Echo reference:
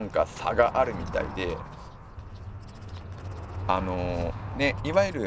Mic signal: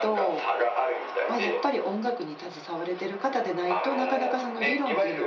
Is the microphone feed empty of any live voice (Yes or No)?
No